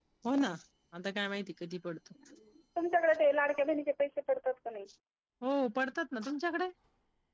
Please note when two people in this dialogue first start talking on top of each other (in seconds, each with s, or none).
none